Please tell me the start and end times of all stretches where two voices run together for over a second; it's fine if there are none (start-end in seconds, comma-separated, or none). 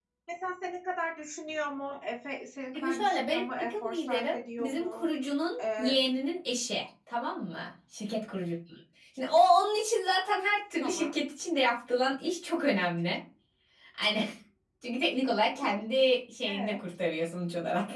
2.7-5.1